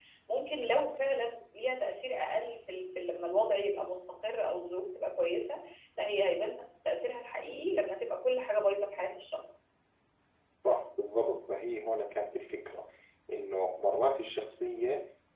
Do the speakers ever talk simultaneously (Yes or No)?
No